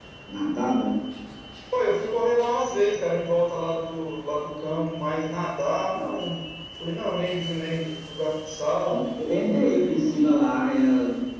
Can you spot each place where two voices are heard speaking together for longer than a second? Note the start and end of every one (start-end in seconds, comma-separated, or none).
9.0-10.2